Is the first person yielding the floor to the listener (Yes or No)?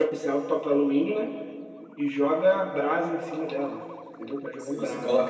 Yes